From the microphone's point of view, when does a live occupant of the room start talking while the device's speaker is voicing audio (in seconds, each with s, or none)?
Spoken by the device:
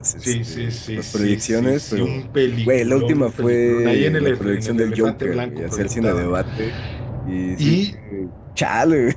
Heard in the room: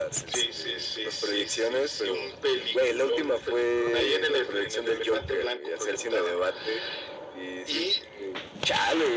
none